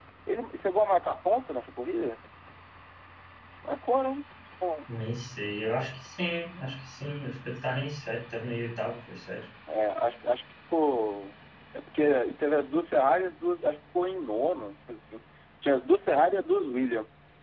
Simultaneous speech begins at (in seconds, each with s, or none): none